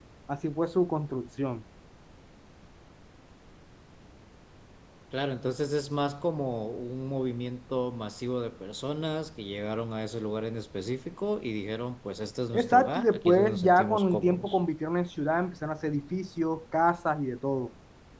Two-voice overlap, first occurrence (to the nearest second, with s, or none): 13 s